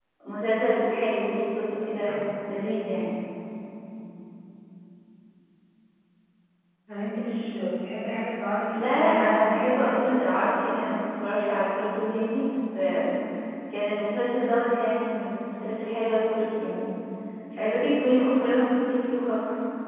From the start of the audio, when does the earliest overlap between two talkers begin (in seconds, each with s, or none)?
8.7 s